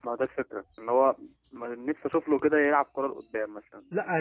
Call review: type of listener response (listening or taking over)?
taking over